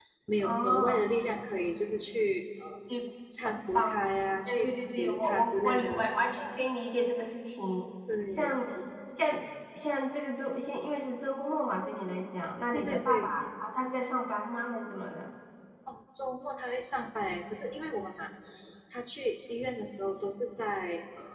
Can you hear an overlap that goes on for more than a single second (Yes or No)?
Yes